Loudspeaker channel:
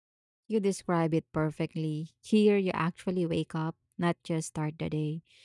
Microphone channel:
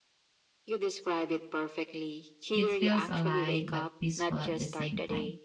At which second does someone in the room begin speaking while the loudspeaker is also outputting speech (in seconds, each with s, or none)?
2.5 s